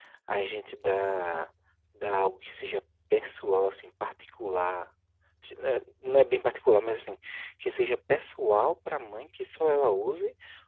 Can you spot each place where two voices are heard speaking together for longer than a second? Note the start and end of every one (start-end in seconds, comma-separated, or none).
none